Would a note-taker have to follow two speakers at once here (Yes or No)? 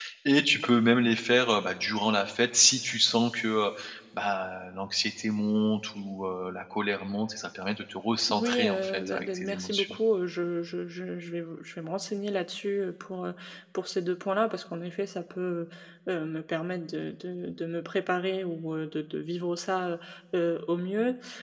Yes